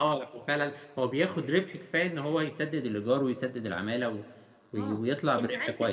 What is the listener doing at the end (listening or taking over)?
taking over